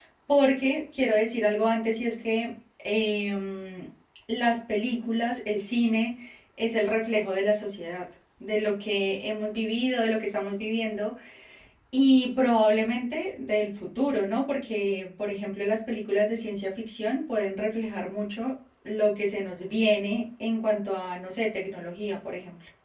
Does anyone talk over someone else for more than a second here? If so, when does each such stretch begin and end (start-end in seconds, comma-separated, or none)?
none